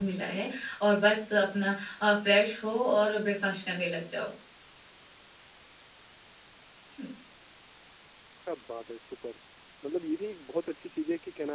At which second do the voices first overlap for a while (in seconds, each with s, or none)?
none